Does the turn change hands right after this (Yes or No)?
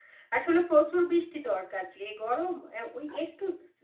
No